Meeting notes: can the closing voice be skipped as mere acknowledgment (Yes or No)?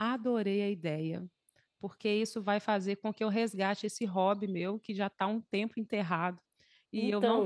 Yes